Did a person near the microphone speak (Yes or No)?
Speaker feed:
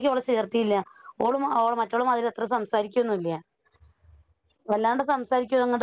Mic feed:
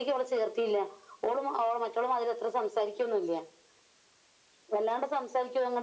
No